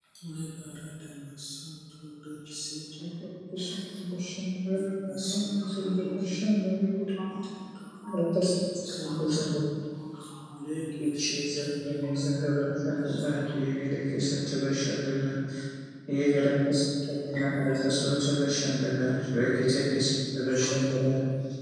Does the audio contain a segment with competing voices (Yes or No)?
Yes